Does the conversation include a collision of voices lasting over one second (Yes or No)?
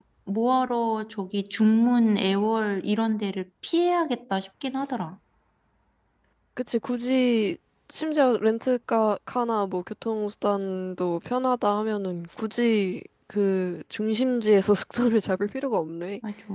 No